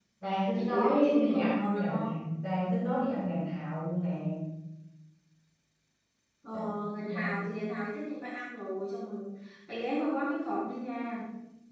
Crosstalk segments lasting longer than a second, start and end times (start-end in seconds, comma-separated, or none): 0.6-2.0